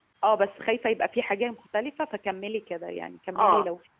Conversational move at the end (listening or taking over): taking over